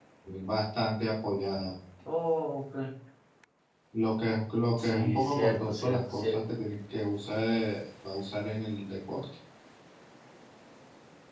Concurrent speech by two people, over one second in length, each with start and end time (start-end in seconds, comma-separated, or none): 4.8-6.4